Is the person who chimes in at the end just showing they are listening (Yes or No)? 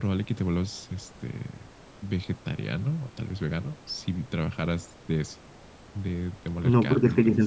No